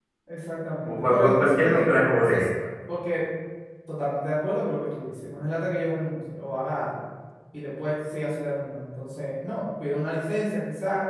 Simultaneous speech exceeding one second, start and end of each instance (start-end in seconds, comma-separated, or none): 0.9-2.5